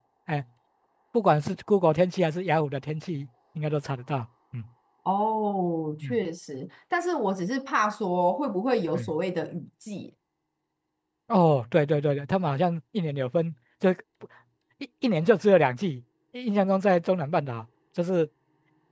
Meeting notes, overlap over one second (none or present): none